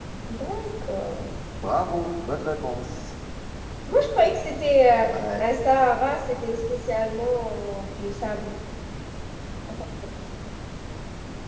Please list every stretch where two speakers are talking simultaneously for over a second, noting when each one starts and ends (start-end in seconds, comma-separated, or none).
none